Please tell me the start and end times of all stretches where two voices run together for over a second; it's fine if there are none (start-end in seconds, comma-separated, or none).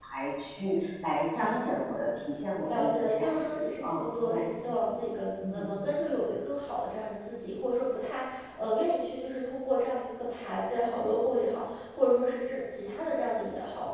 2.6-4.4